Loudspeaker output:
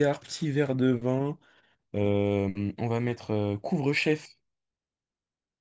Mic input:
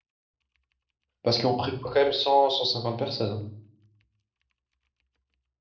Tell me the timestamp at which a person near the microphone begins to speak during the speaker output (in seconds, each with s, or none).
1.2 s